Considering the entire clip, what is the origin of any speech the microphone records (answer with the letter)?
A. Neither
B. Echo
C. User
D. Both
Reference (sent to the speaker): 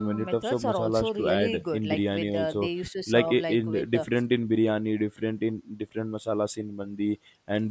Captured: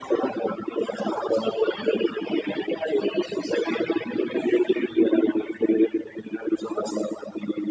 B